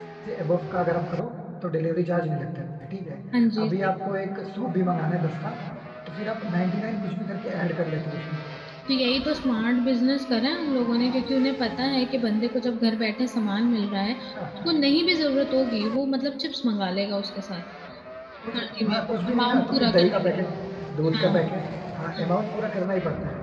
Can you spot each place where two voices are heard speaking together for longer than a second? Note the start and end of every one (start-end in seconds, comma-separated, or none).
18.5-20.2